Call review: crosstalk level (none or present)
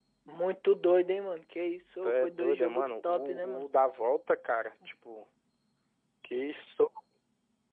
present